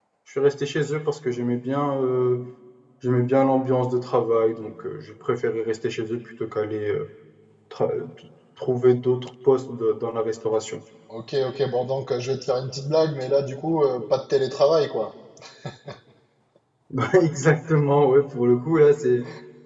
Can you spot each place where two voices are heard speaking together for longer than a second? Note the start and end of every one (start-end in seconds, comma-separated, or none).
none